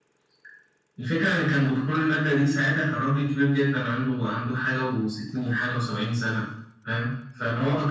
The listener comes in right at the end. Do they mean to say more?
No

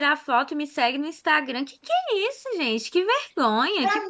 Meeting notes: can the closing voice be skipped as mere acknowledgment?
No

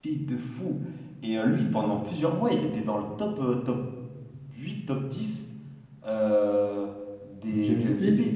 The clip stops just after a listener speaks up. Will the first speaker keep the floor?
Yes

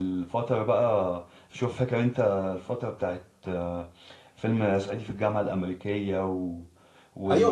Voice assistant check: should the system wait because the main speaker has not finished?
No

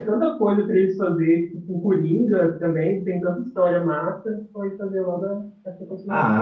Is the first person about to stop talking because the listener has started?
Yes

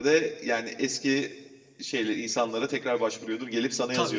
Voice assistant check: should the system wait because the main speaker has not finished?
No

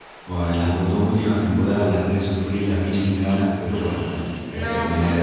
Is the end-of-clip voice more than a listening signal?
Yes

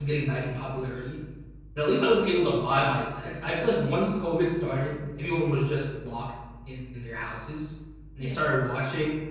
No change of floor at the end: Yes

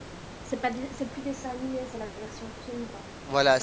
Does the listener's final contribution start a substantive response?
Yes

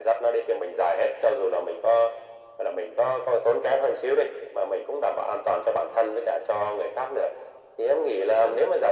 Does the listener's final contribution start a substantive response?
No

